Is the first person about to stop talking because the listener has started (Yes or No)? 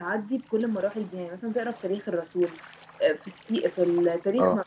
No